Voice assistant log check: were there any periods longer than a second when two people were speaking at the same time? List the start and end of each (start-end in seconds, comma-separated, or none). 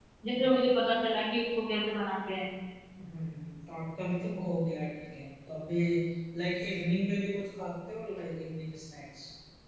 none